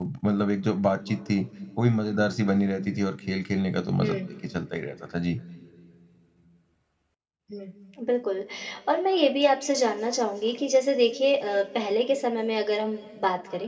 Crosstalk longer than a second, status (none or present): none